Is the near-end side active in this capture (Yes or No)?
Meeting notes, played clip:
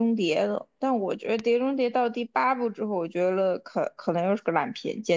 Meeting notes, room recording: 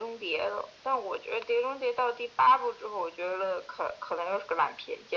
No